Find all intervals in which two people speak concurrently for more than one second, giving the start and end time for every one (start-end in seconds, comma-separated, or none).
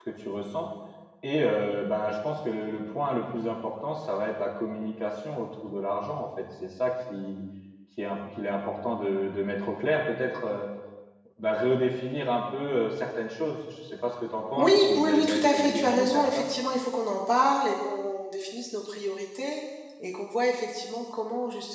14.6-16.4